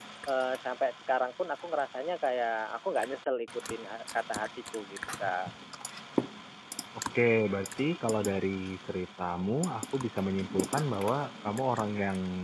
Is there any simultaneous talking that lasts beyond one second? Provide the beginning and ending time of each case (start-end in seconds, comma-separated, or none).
none